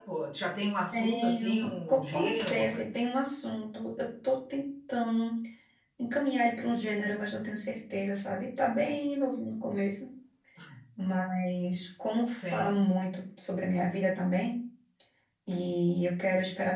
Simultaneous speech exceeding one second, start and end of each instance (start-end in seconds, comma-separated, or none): 0.9-2.8